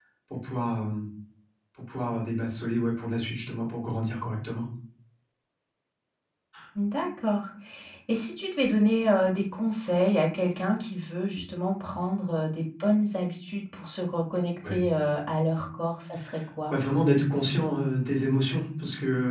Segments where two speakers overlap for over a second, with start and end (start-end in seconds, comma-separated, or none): none